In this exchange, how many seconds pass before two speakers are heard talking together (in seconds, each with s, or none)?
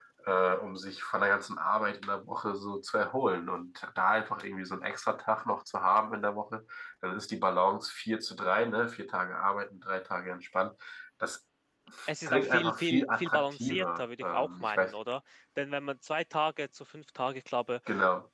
12.3 s